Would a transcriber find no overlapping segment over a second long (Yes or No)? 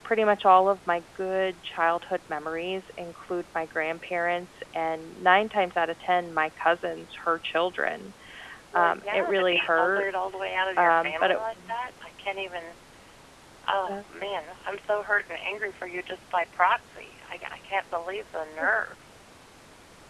No